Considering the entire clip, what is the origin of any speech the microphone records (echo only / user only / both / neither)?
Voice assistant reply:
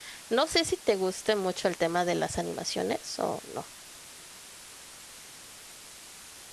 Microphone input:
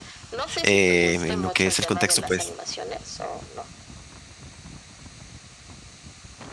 both